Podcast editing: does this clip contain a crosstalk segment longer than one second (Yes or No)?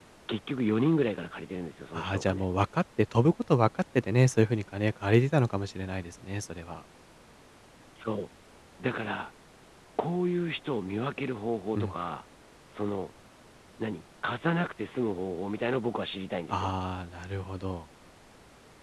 No